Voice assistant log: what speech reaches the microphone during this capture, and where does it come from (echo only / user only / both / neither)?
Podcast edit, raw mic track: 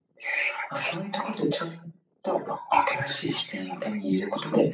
echo only